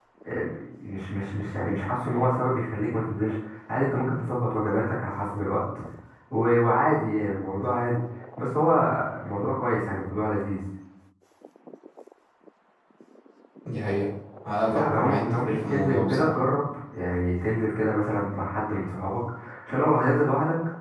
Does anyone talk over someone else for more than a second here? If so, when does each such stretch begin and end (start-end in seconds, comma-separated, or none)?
14.7-16.3